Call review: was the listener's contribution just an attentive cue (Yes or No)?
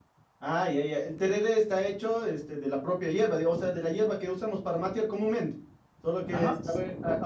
No